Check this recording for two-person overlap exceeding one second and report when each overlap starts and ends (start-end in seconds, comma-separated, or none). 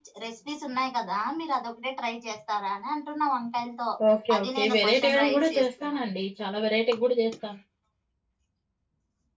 4.4-6.0